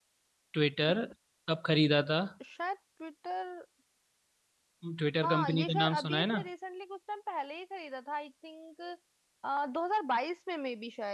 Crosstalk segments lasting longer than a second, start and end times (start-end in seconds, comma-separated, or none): 5.2-6.4